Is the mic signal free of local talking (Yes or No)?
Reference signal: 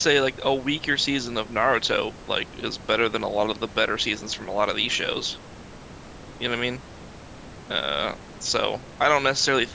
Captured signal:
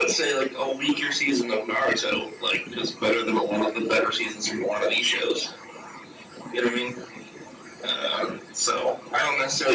Yes